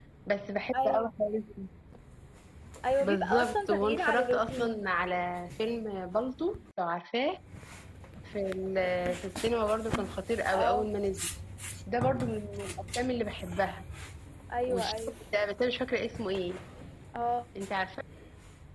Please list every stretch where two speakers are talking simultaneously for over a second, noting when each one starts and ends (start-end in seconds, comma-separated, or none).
3.0-4.8